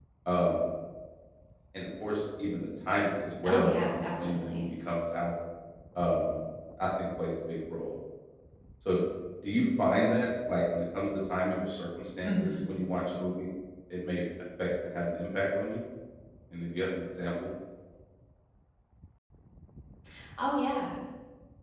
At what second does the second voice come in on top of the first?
3.5 s

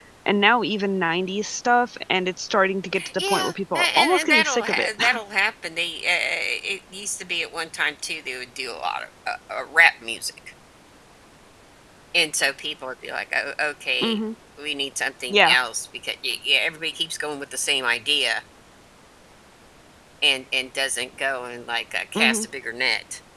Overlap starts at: 3.2 s

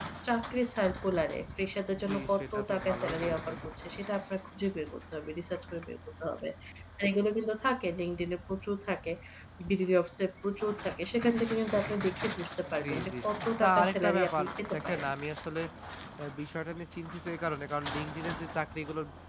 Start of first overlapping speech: 2.1 s

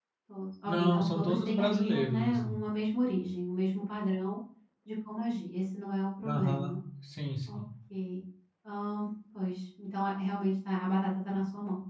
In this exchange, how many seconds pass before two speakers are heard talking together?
0.7 s

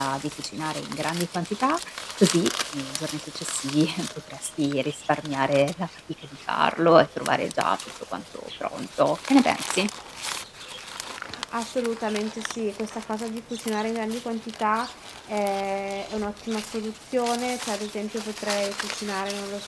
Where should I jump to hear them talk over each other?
none

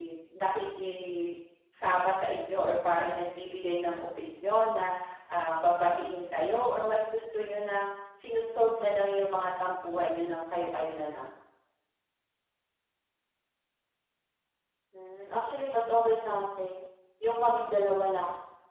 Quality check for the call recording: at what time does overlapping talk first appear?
none

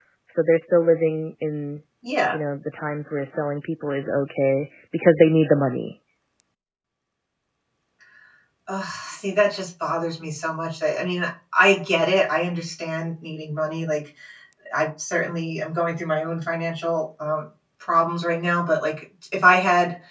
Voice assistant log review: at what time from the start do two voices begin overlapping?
none

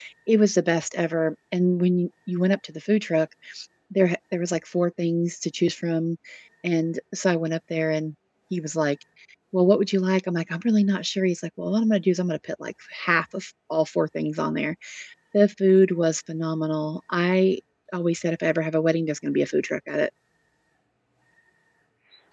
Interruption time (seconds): none

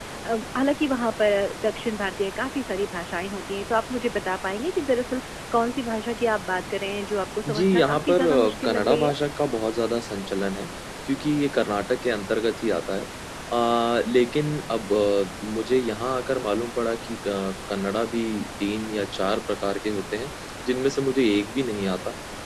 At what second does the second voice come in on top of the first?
7.5 s

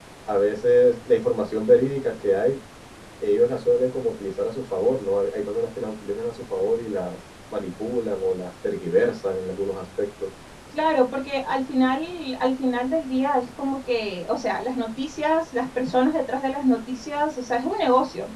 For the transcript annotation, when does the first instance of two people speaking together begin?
none

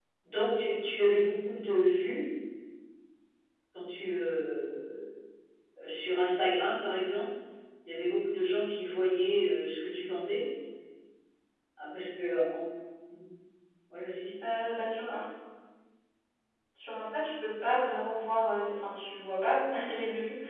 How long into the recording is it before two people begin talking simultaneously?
none

